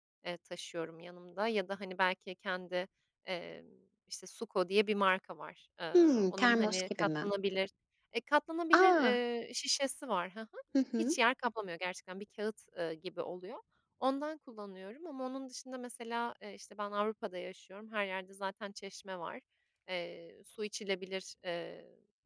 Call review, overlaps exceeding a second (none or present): present